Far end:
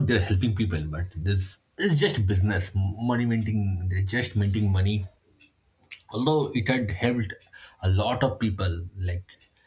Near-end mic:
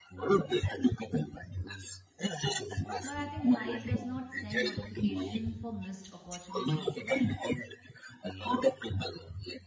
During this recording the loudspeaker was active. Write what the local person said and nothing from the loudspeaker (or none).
but i think life does not send notification for missed opportunities like